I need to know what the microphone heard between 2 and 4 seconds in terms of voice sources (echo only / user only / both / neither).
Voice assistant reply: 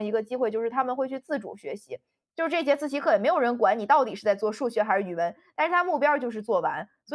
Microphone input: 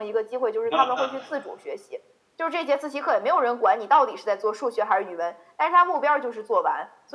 echo only